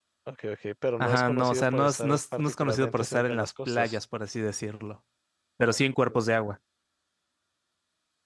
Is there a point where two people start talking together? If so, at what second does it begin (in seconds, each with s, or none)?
1.0 s